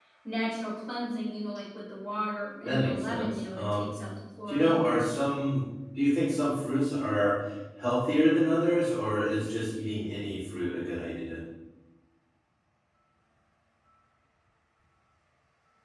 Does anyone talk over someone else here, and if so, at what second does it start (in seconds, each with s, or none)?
2.6 s